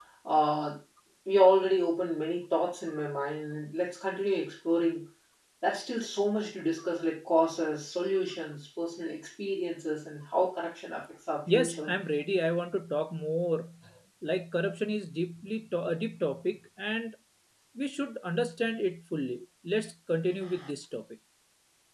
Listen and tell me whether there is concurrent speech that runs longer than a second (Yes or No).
No